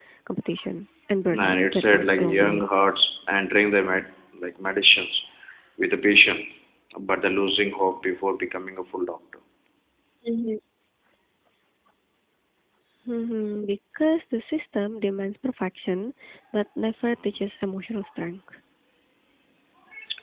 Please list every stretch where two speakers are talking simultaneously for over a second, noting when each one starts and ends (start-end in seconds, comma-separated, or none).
1.4-2.7